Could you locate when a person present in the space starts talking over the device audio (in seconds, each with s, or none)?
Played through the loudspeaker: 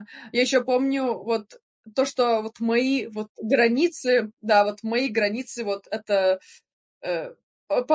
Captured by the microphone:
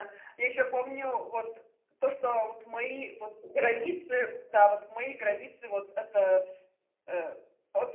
none